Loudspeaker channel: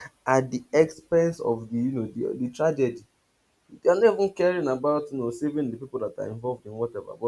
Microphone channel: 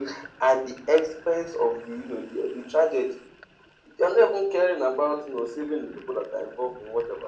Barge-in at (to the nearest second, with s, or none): none